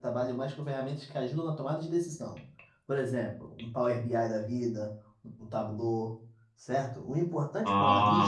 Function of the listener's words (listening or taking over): listening